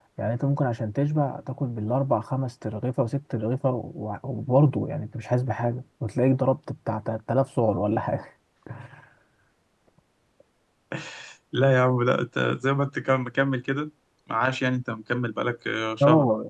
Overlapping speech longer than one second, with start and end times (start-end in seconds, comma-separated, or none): none